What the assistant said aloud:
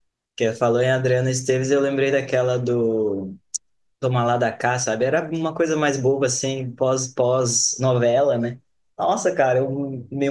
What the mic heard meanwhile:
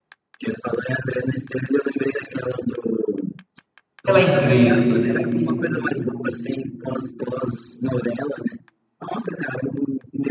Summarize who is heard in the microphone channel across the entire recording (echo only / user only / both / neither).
both